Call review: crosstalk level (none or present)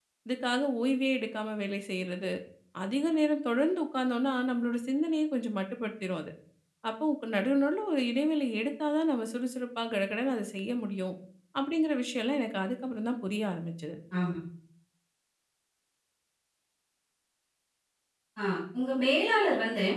none